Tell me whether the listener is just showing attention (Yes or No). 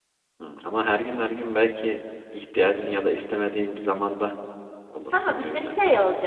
No